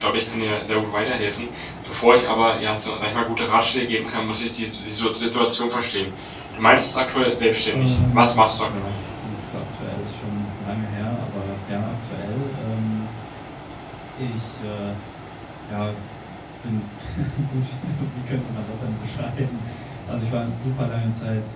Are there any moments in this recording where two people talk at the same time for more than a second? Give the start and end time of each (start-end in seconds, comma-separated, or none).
7.7-8.9